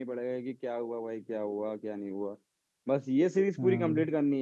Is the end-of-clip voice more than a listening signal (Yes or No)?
No